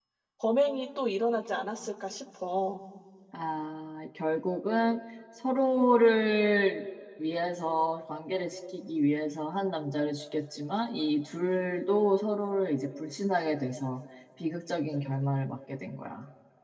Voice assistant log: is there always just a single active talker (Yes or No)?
Yes